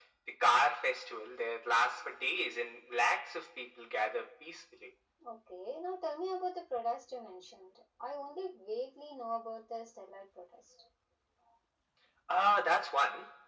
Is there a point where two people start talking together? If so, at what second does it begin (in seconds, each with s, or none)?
none